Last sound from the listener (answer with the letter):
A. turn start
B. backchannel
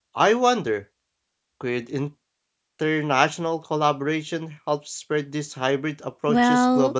A